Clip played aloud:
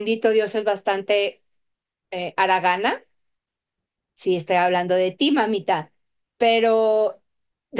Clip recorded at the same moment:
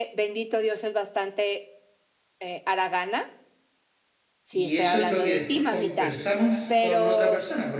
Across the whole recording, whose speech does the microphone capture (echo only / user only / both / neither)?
both